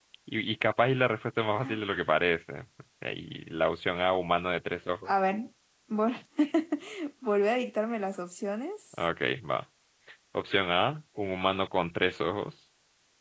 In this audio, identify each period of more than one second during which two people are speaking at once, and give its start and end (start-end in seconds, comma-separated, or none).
none